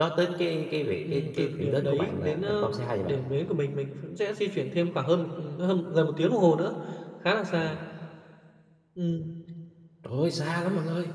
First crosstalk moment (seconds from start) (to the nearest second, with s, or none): 1 s